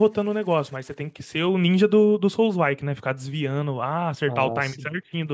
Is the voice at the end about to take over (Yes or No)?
No